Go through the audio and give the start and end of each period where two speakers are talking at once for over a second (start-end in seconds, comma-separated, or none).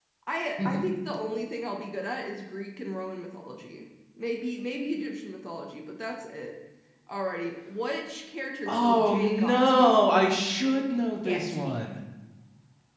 8.7-10.0